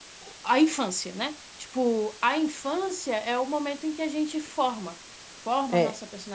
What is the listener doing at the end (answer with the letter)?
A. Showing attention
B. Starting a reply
A